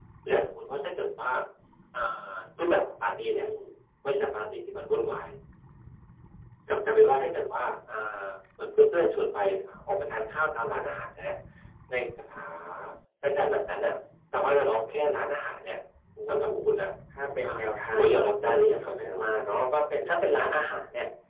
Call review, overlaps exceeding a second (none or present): present